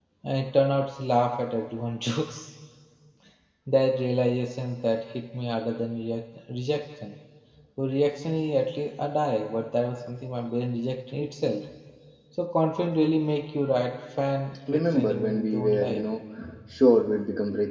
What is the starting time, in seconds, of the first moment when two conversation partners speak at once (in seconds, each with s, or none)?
14.7 s